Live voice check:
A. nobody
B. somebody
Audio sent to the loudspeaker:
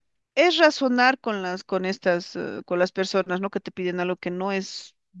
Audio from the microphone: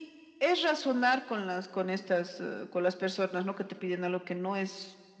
A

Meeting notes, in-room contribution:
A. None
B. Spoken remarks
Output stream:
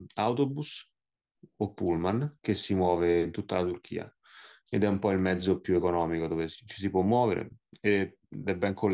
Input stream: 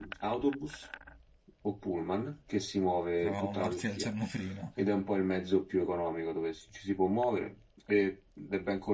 B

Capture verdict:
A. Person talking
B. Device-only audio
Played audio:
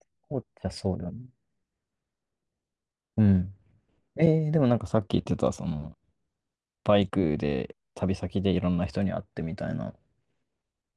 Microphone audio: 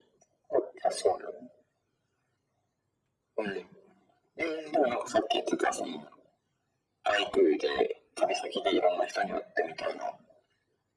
B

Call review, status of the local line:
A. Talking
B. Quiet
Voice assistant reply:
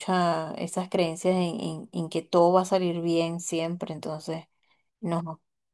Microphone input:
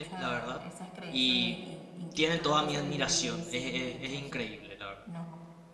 A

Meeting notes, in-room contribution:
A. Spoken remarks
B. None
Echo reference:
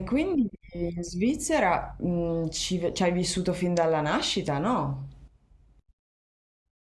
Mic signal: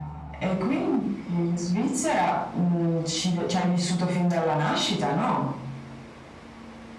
B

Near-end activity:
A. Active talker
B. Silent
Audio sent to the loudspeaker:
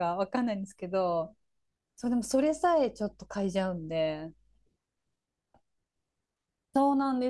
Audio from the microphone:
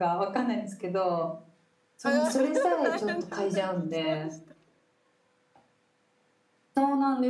A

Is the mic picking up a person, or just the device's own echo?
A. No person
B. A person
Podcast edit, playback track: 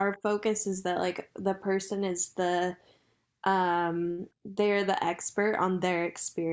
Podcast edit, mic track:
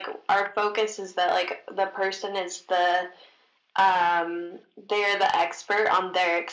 A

